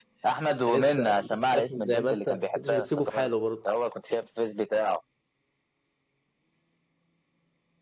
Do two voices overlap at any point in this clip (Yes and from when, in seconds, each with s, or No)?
Yes, from 0.7 s